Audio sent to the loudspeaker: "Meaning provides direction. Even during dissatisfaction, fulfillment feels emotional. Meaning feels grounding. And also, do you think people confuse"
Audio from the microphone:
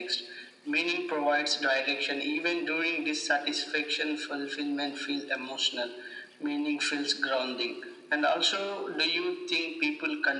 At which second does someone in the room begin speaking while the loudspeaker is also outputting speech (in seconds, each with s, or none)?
none